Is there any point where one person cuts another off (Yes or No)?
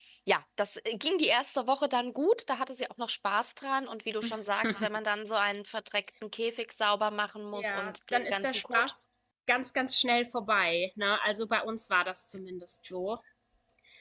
Yes